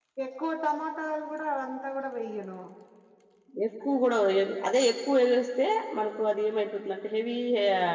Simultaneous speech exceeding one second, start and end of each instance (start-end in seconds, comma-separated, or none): none